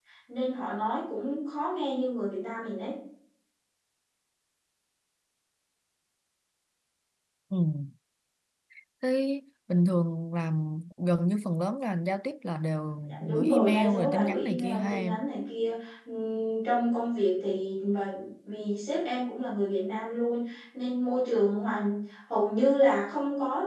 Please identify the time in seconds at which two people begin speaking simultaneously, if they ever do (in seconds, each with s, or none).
13.1 s